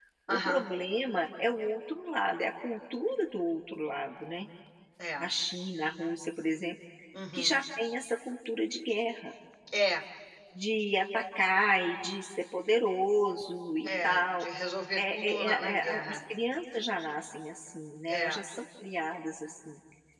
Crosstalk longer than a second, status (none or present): present